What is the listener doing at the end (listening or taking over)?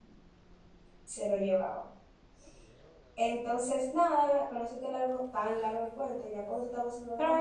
taking over